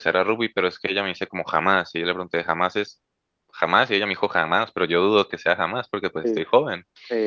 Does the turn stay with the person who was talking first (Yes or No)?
No